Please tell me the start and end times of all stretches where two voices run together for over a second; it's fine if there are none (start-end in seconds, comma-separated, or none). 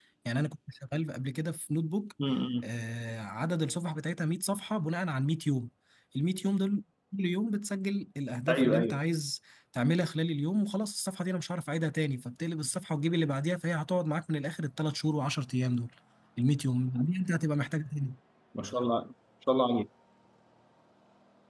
none